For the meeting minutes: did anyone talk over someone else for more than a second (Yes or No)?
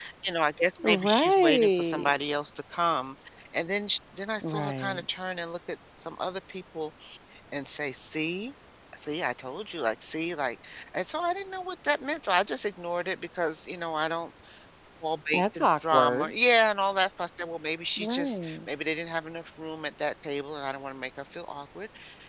Yes